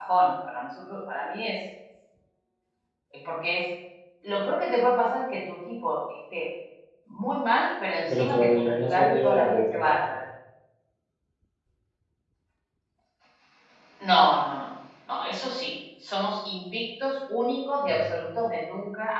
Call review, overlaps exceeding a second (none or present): present